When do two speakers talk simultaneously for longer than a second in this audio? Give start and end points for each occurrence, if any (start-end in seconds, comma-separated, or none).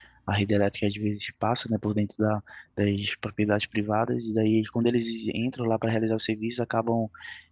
none